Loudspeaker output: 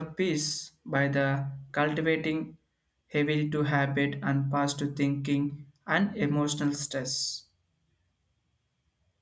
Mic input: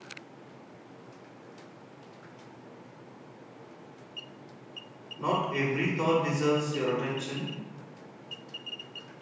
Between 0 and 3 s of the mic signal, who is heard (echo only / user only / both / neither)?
neither